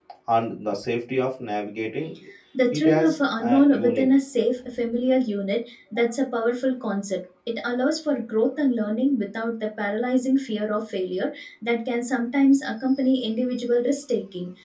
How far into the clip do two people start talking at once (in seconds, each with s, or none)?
2.7 s